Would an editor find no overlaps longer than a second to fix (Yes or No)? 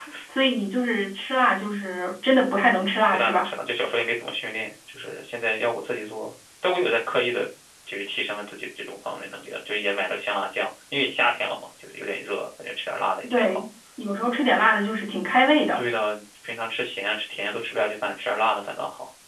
Yes